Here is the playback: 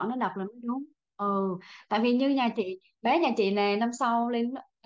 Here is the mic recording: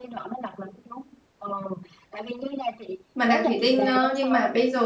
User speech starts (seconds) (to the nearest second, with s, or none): 3 s